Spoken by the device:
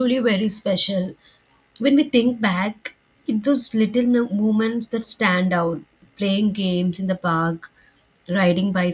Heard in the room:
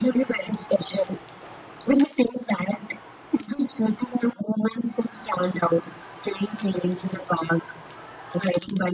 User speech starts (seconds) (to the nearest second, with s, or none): none